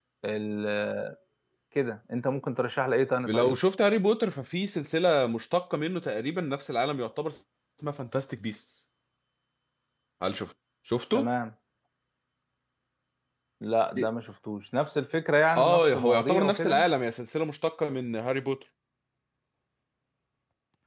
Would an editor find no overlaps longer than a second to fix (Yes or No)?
No